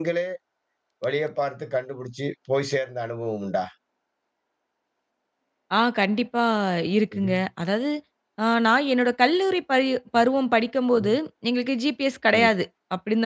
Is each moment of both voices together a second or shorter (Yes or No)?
Yes